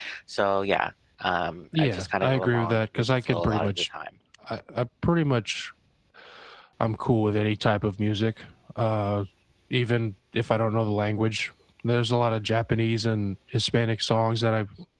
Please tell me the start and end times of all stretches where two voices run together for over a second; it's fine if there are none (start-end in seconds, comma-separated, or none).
1.8-3.9